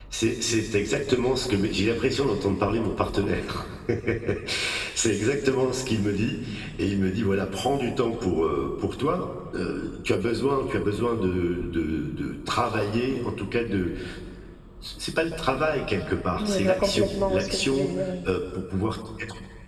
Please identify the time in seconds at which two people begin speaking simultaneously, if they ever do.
16.4 s

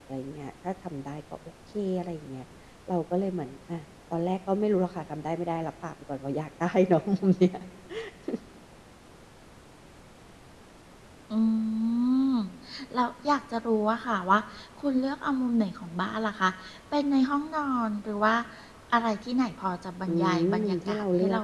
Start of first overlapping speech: 20.1 s

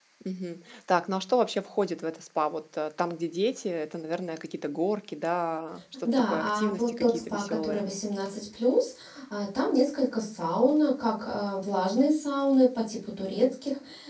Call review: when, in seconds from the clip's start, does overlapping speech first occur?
6.0 s

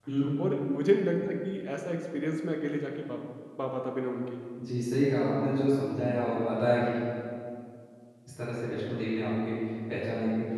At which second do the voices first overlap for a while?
none

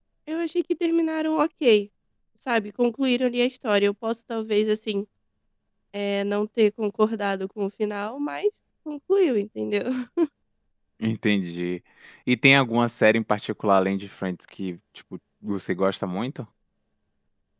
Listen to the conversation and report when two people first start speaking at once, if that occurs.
none

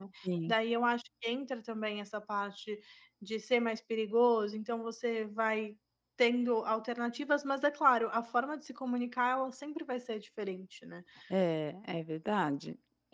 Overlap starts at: none

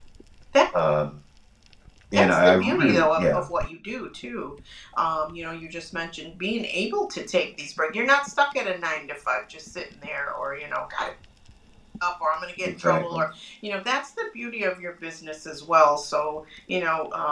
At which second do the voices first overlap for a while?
2.2 s

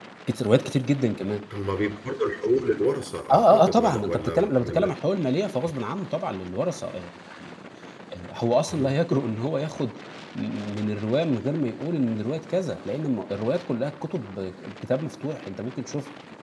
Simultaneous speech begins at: 3.3 s

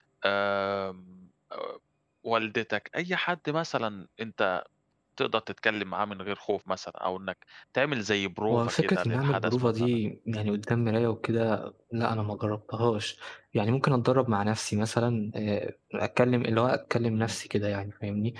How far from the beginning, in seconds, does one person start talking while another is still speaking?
8.5 s

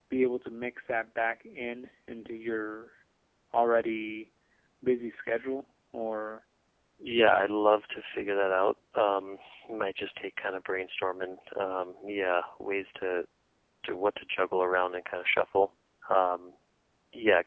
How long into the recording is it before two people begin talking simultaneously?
none

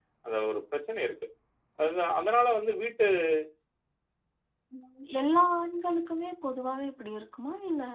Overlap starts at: none

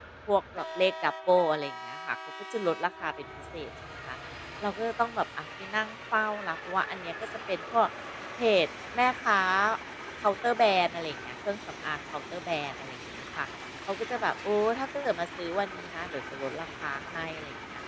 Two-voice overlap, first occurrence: none

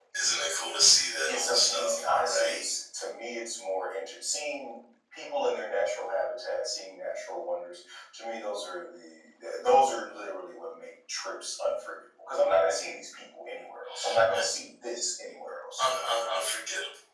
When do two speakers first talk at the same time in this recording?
1.3 s

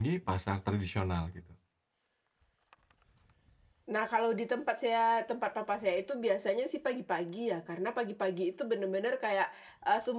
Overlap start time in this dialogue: none

